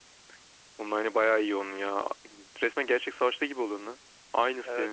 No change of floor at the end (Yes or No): No